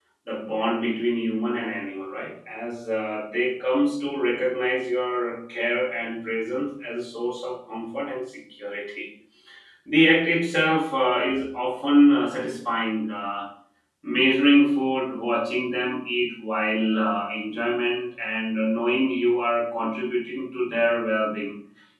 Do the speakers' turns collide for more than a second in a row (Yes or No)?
No